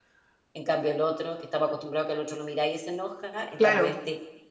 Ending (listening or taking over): listening